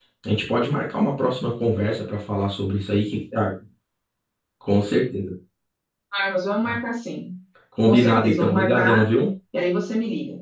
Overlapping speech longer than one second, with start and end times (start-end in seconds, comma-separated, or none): 7.8-9.1